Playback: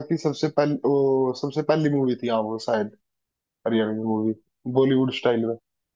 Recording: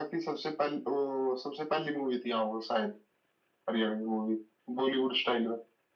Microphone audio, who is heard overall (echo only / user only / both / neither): echo only